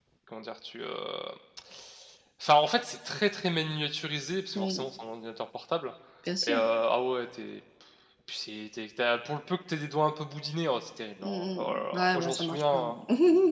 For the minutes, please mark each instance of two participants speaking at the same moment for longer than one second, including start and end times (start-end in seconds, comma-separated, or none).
11.2-12.8